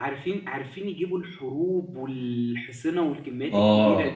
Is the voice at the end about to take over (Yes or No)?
Yes